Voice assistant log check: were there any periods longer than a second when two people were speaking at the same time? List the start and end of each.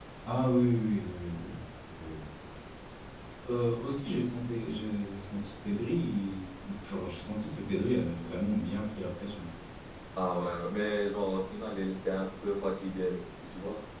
none

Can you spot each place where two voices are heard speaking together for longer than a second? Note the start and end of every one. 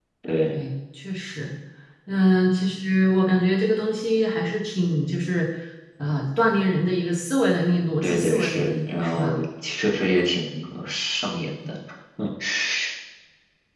8.0-9.4

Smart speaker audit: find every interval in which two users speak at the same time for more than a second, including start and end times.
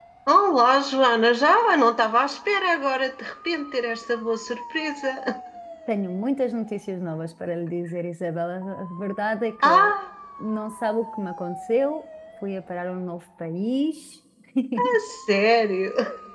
none

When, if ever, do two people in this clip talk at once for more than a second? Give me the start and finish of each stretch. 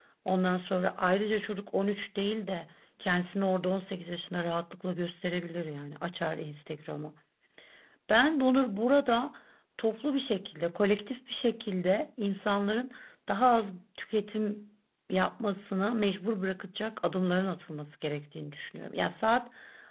none

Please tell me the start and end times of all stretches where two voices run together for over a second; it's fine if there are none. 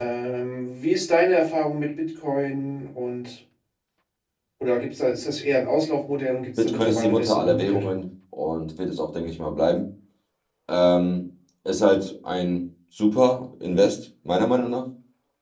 6.6-7.9

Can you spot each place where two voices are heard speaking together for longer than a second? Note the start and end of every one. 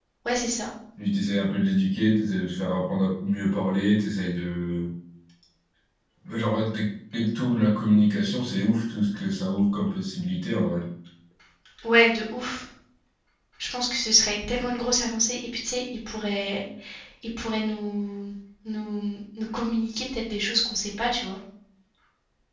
none

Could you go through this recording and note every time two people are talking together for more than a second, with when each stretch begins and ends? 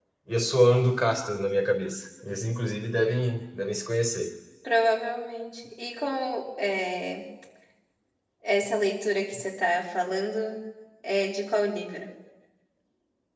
none

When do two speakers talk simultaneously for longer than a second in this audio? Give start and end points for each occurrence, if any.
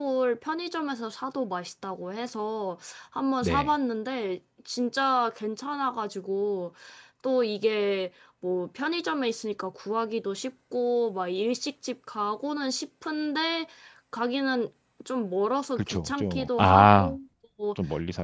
15.8-17.2

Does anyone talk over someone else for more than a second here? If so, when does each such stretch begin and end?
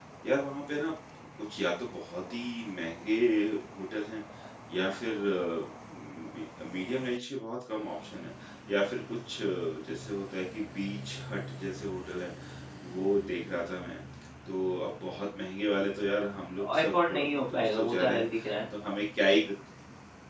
16.8-18.2

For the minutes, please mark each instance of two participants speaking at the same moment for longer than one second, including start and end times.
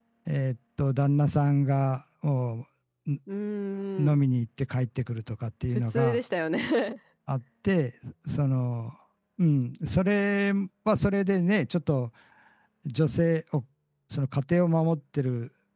none

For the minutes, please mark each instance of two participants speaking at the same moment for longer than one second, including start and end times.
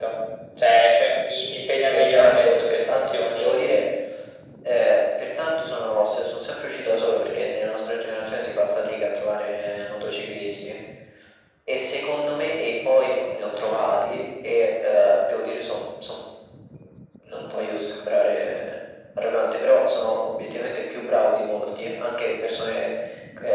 1.9-3.8

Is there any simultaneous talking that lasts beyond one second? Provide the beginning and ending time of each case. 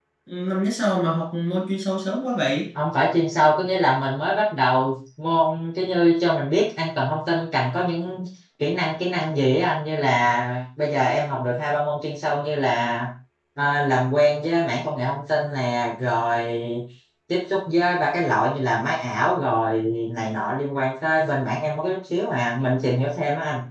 none

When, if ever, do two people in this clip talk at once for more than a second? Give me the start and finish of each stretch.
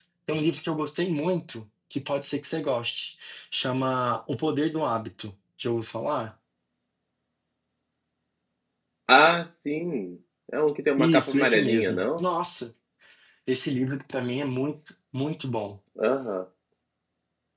11.0-12.2

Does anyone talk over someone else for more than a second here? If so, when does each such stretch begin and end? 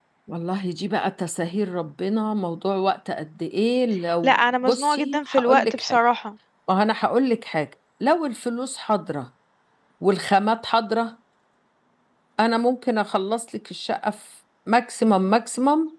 4.2-6.0

